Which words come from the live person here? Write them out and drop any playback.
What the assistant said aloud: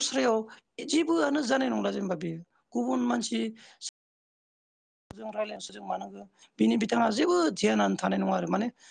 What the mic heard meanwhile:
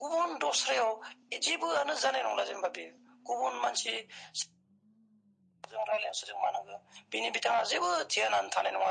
none

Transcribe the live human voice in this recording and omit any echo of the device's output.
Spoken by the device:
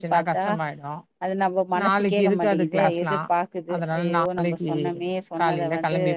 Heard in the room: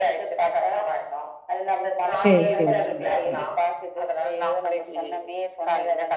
சேர் சேர் சே சே

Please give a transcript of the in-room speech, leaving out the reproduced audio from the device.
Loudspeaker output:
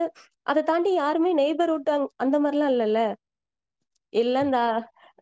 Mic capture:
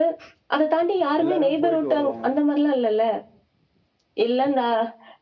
எல்லாருமே போயிட்டு வருவாங்க

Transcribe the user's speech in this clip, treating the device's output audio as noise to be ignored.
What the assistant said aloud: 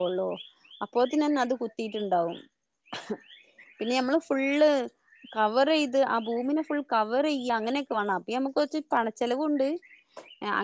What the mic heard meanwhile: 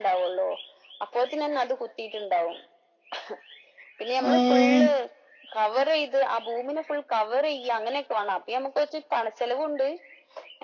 ഉം

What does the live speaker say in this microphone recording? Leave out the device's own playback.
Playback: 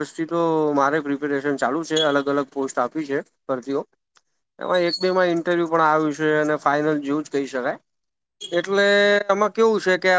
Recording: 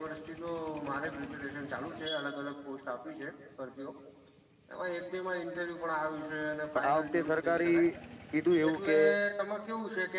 પણ આ વખતે સરકારી કીધું એવું કે

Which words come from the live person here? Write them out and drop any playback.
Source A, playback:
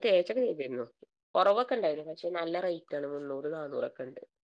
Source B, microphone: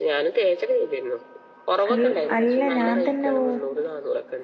അൽ അല്ല ഞാൻ തന്നെ പോവും

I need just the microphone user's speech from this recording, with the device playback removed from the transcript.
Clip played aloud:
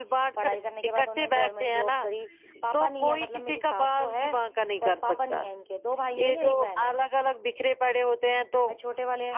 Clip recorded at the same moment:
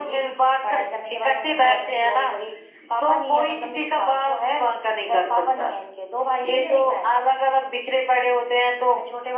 none

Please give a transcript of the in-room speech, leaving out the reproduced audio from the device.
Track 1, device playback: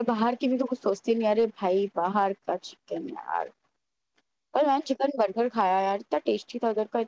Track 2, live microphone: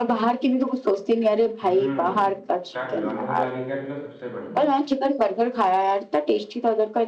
ہوں کر لو امول والی کر لو سب سے بڑی ہے

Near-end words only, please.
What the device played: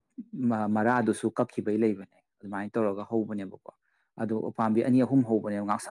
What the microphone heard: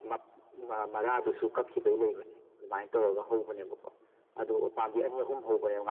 none

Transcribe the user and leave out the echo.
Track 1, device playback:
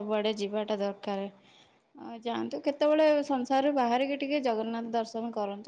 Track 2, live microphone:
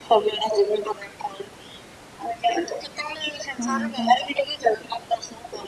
ହଁ ହଁ।

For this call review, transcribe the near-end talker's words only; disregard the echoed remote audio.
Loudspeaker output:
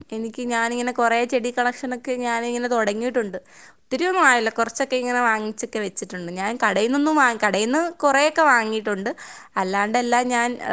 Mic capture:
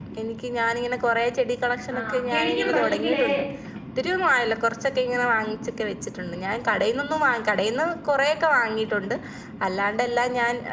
ആ കിളിക്കും പക്ഷേങ്കിലേ

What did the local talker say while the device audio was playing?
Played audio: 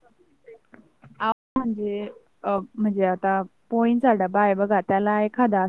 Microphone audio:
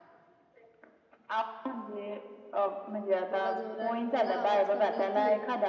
थोड जोरानी बोला आवाज कमी येतोय.

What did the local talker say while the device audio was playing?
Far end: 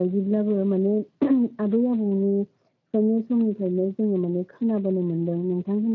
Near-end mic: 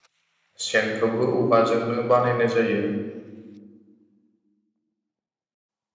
सेनखौबो औवाजोंनो बानायनाय जायो

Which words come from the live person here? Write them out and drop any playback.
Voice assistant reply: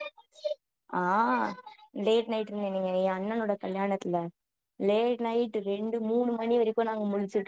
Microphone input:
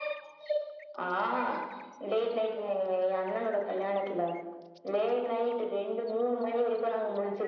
none

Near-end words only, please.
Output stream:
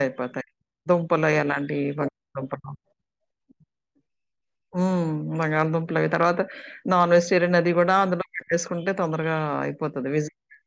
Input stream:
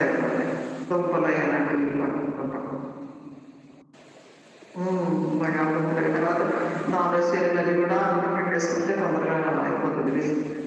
none

